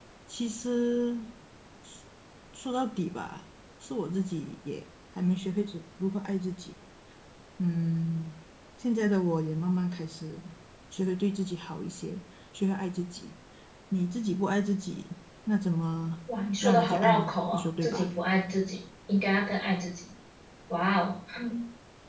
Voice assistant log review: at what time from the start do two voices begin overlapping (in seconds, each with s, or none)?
16.6 s